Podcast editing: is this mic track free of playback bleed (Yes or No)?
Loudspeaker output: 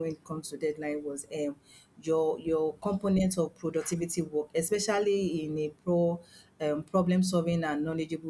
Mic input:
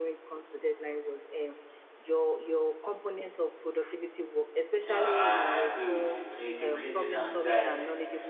No